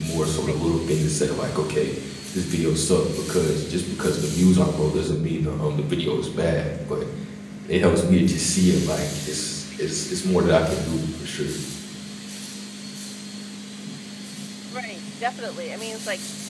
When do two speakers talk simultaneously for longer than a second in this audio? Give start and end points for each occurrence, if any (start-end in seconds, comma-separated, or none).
none